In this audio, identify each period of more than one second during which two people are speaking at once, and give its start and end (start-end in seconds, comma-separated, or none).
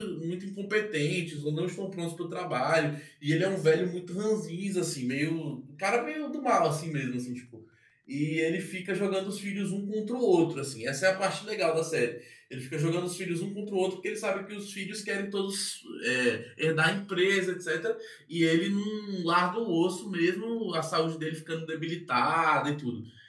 none